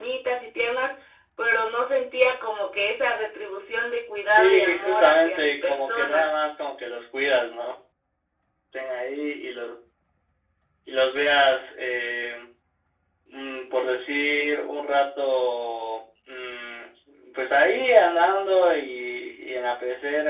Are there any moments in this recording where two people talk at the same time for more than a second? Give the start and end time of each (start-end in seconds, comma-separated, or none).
4.3-6.3